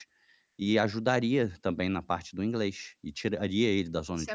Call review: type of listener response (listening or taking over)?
taking over